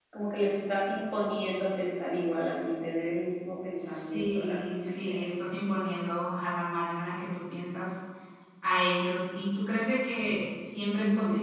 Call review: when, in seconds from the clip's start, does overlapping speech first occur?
4 s

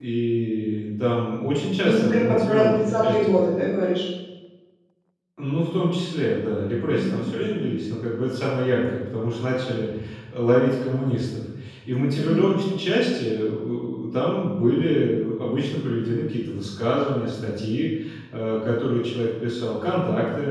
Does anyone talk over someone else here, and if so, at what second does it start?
2 s

